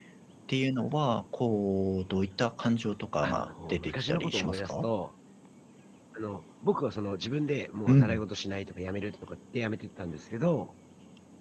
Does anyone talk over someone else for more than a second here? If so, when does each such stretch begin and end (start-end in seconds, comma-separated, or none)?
3.2-4.9